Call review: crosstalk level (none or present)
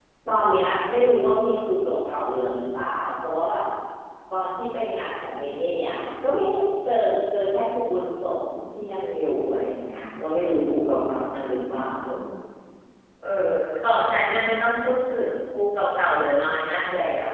none